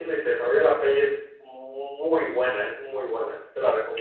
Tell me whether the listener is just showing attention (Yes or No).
No